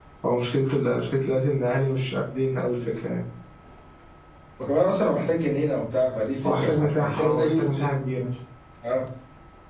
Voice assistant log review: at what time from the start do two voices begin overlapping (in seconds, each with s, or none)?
6.4 s